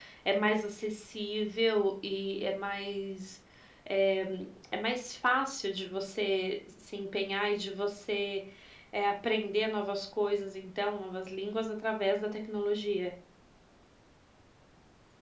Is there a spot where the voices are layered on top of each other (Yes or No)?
No